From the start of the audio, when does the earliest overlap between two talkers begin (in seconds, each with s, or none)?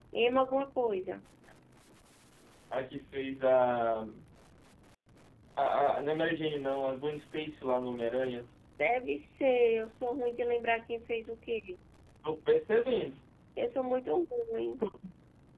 none